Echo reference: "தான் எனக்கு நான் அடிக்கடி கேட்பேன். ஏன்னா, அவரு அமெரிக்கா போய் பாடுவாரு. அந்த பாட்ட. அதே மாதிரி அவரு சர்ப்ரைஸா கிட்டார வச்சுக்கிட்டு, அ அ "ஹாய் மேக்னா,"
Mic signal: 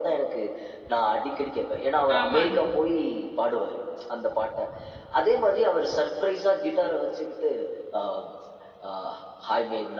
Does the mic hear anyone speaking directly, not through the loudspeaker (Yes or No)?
Yes